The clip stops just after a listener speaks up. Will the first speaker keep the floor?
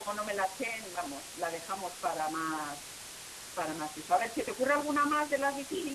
No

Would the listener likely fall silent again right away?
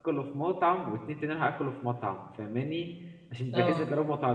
Yes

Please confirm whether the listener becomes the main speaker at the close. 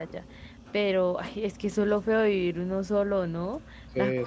Yes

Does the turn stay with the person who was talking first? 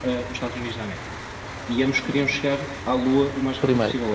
Yes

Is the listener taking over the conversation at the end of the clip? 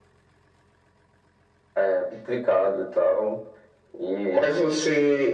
Yes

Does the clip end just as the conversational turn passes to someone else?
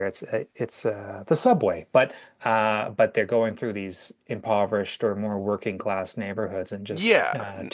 Yes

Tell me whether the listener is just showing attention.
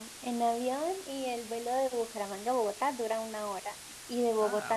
Yes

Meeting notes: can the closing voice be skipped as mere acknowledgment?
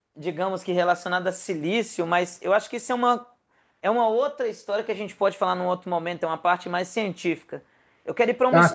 Yes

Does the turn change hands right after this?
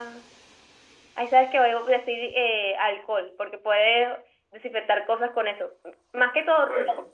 No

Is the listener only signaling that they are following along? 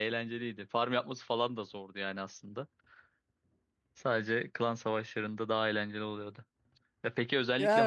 Yes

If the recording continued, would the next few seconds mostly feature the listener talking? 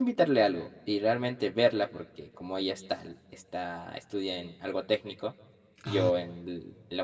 No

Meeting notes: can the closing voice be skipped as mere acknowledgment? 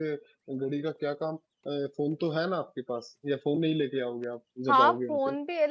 No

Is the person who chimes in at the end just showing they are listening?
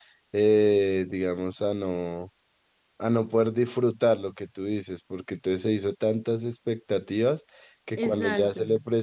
Yes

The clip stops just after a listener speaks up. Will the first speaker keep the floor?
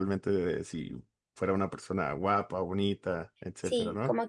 No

